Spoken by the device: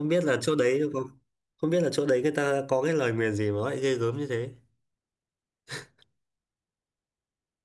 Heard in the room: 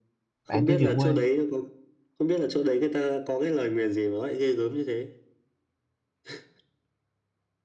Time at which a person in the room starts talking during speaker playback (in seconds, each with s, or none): 0.5 s